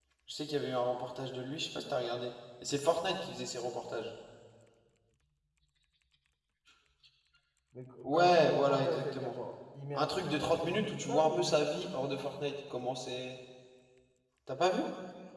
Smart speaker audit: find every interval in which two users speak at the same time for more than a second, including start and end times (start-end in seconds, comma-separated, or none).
8.0-9.3, 9.9-11.5